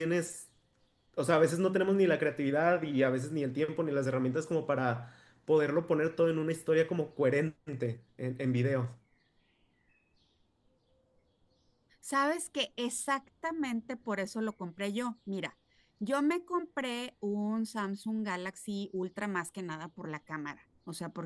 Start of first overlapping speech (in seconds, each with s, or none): none